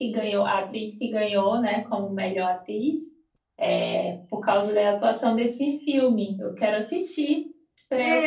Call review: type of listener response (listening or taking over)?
taking over